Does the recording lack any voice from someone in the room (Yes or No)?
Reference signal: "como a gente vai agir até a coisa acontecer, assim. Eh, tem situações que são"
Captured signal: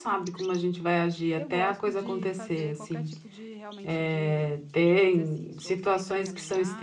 No